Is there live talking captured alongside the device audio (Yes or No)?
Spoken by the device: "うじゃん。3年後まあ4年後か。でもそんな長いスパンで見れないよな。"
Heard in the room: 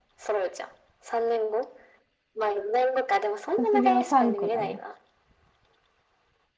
Yes